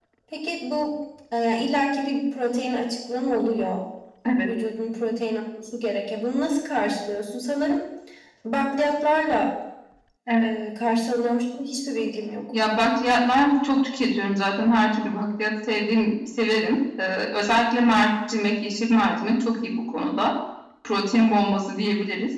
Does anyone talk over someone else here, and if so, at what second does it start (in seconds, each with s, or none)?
none